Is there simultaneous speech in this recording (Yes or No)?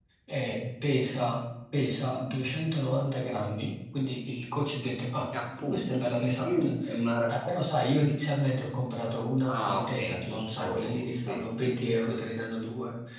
Yes